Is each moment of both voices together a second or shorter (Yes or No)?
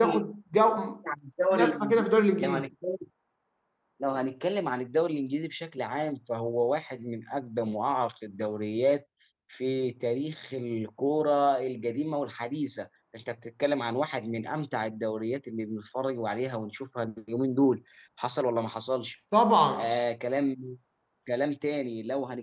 Yes